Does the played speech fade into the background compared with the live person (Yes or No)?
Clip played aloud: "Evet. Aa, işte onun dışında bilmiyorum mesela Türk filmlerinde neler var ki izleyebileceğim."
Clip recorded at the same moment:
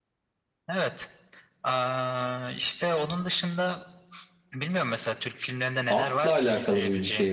Yes